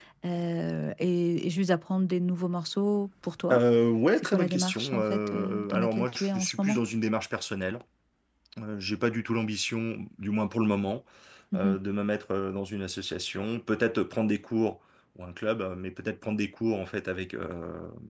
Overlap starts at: 4 s

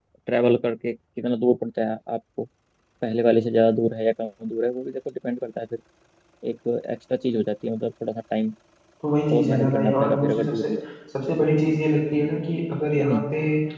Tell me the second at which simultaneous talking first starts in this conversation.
9 s

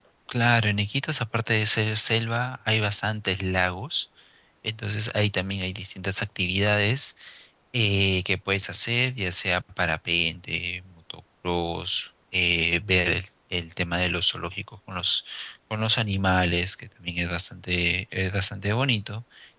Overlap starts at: none

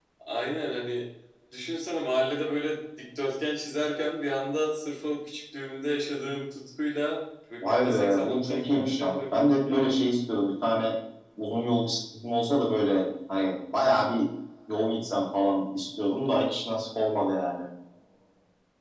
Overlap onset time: 8 s

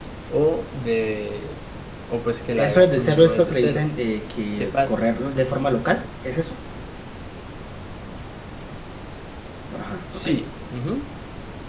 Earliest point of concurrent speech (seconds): 3 s

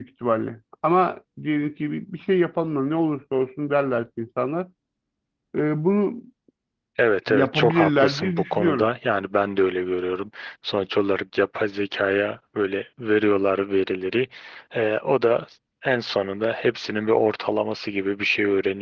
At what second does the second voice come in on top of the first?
7 s

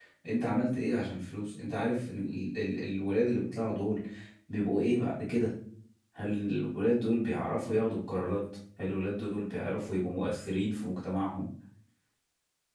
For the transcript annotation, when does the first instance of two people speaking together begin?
none

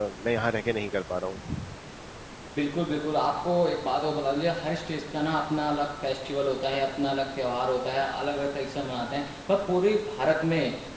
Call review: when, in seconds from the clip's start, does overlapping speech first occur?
none

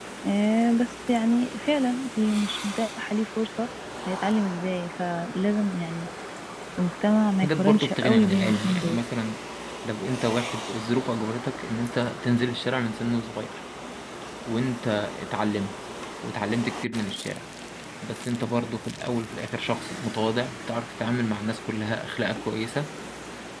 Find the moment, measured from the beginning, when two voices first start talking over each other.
7 s

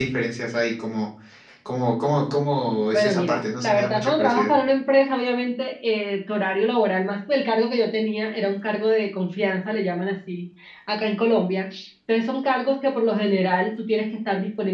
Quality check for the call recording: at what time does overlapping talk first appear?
3 s

